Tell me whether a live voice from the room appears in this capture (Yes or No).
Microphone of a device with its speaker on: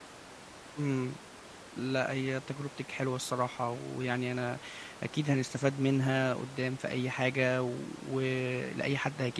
Yes